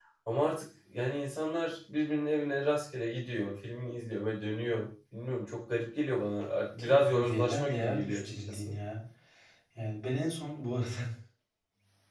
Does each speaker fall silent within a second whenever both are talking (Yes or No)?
No